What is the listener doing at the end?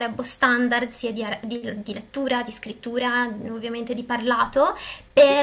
listening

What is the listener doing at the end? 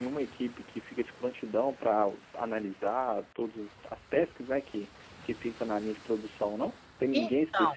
listening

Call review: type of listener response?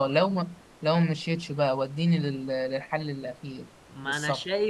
taking over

